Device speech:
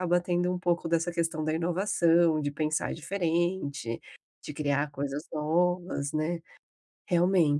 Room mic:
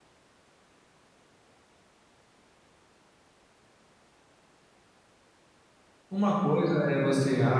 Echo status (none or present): none